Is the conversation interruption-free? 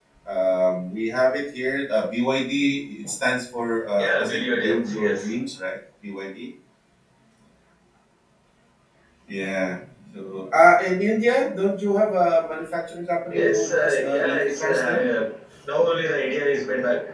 No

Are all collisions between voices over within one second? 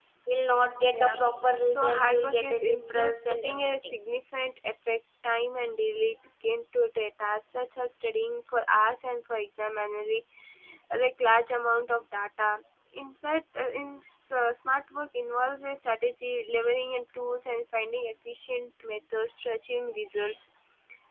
No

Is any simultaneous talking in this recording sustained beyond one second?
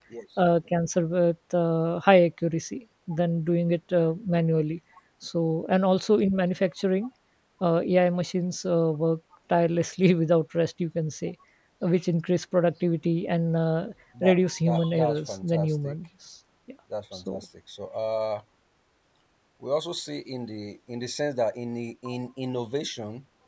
Yes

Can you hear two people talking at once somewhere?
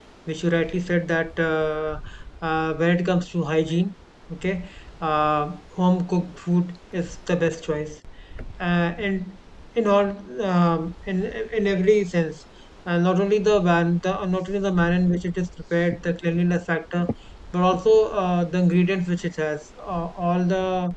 No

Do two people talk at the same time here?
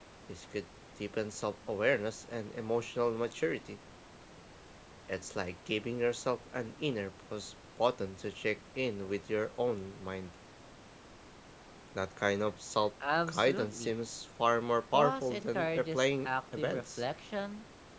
Yes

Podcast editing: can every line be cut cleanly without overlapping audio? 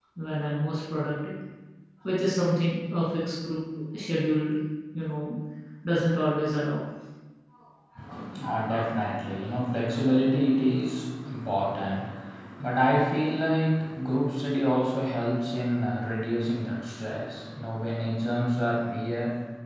Yes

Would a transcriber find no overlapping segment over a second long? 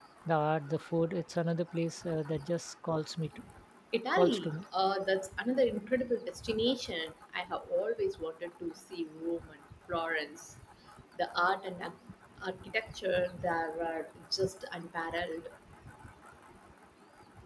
Yes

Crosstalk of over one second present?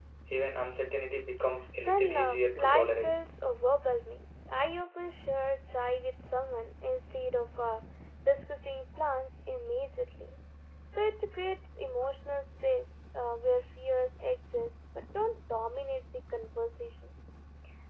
Yes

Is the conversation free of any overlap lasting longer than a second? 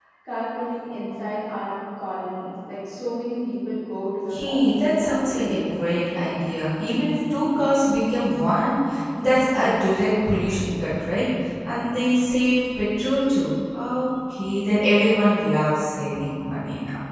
No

